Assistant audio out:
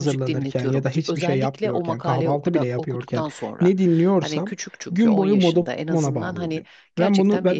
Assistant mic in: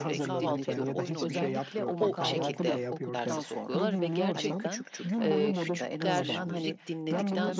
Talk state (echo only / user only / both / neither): both